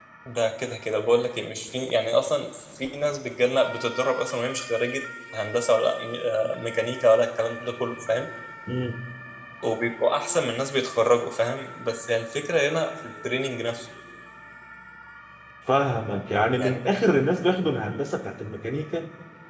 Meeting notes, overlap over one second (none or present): none